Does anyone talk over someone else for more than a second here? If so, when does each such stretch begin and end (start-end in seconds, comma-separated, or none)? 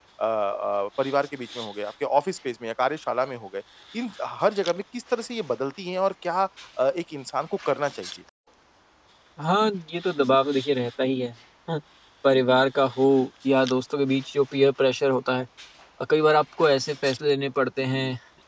none